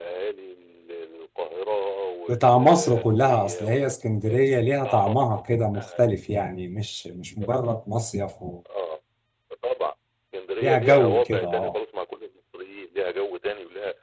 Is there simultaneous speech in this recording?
Yes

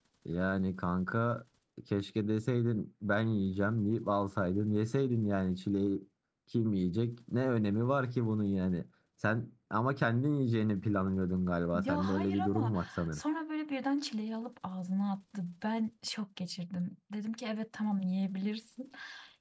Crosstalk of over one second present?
Yes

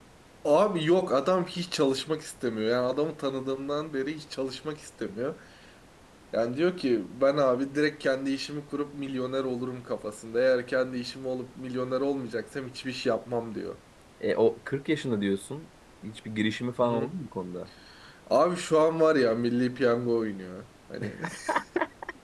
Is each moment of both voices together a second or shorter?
Yes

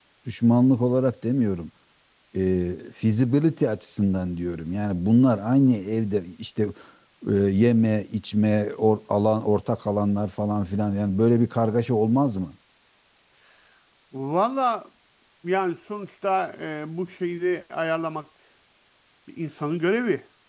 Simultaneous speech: No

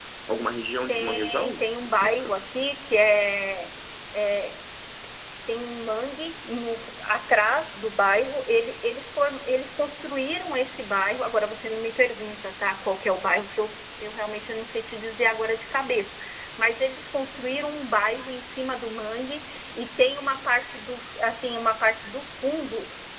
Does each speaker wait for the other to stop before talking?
No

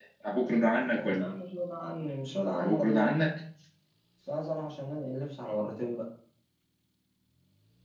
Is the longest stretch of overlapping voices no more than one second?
Yes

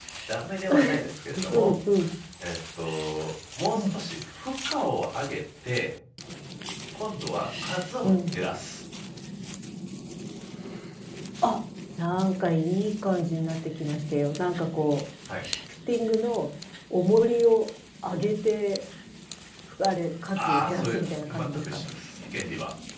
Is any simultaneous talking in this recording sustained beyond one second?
Yes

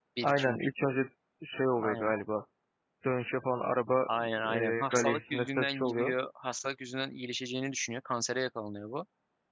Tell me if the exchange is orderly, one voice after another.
No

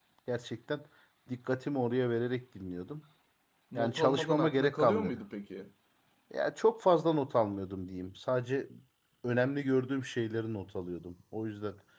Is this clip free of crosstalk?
No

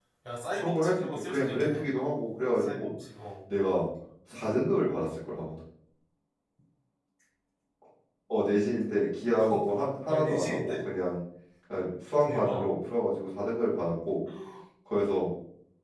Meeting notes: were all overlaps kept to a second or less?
No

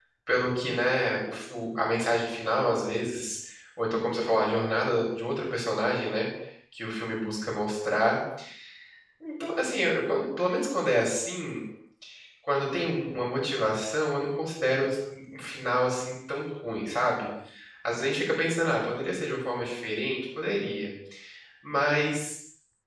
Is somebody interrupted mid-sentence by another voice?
No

